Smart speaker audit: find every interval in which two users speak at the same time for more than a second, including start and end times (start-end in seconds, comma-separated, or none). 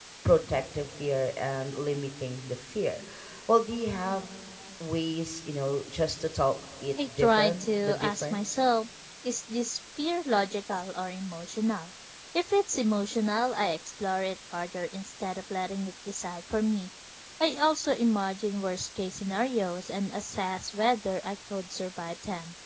7.2-8.6